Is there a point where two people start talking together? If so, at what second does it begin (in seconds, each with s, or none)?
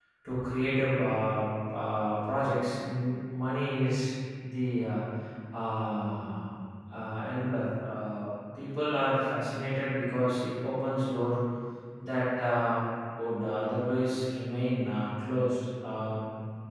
none